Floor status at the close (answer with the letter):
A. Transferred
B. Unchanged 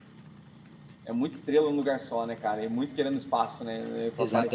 A